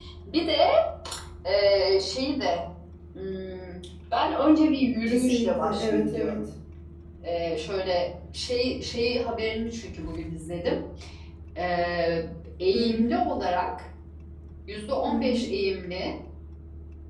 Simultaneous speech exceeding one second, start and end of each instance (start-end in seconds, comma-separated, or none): 5.0-6.4